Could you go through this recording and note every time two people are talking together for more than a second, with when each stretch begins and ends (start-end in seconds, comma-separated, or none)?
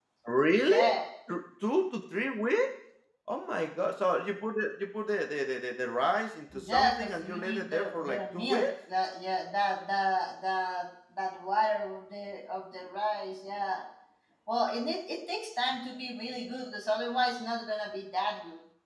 6.5-8.7